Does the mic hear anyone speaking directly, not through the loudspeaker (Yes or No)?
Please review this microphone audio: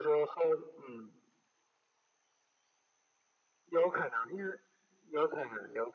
No